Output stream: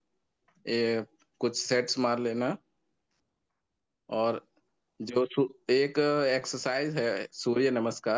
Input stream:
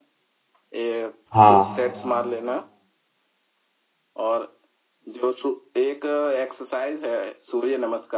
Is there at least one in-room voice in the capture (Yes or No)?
Yes